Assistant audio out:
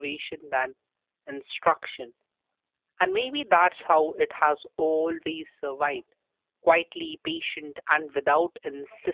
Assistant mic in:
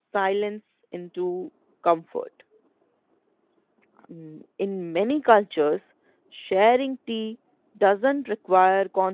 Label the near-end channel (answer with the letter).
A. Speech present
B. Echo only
A